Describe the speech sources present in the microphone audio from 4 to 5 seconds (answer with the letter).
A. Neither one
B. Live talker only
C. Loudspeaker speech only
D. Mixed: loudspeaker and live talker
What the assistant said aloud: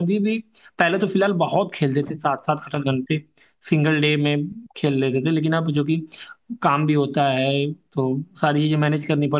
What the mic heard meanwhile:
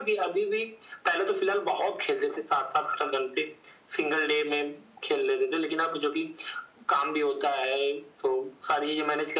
C